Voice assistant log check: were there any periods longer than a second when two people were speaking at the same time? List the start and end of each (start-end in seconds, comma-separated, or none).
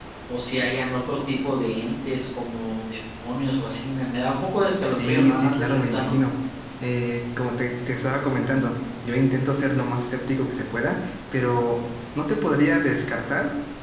4.9-6.1